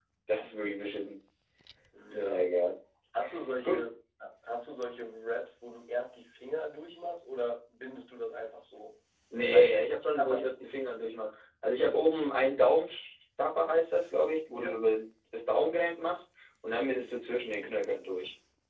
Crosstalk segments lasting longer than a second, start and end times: 9.5-10.7

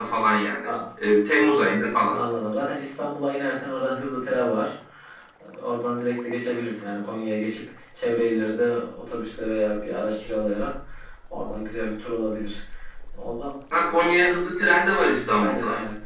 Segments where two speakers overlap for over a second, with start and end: none

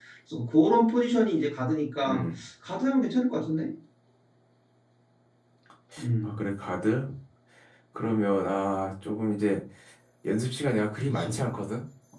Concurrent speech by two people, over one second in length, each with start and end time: none

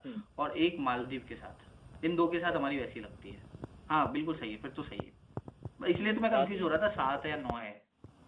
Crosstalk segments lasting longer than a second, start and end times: 6.0-7.4

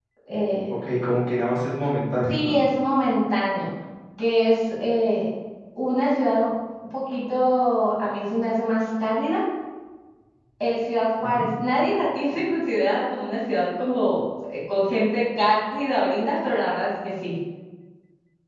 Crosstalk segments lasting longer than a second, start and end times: none

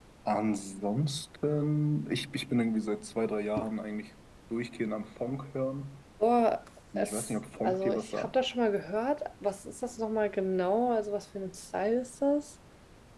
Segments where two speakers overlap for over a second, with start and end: 7.0-8.4

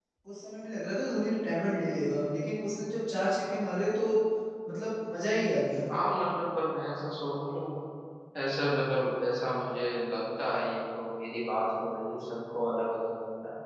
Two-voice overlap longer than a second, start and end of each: none

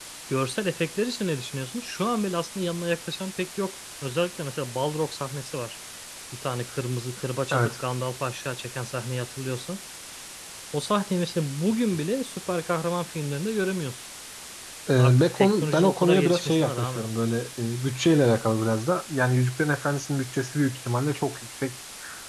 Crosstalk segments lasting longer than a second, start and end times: 15.0-17.0

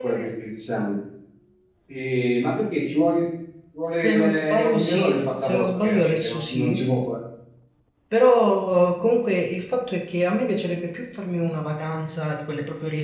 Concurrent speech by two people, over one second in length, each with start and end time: 3.9-6.9

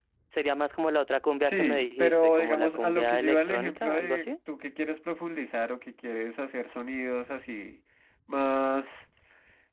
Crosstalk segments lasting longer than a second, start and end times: 1.4-4.3

